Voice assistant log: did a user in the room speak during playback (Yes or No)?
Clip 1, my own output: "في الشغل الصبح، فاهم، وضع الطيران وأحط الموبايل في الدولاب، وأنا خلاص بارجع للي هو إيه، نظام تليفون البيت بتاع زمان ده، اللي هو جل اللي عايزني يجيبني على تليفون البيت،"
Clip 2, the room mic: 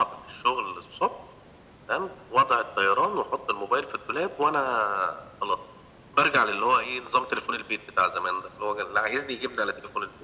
No